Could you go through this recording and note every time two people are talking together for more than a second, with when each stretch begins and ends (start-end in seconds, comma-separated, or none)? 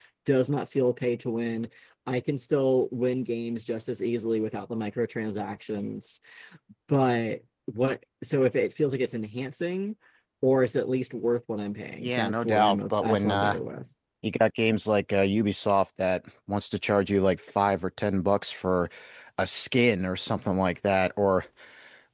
12.0-13.6